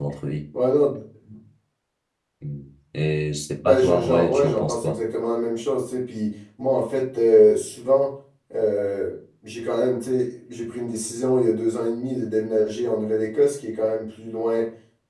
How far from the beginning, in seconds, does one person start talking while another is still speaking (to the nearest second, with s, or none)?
4 s